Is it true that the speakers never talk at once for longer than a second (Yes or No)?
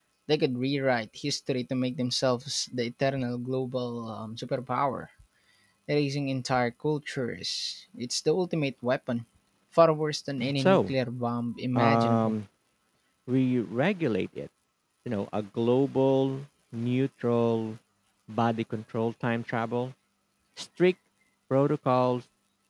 Yes